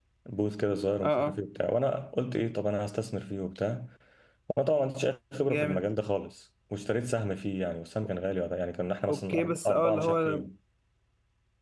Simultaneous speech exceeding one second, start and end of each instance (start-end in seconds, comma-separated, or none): 9.1-10.4